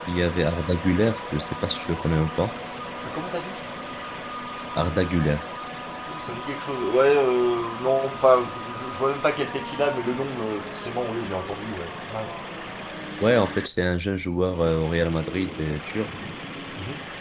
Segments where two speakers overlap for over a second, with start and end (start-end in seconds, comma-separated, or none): none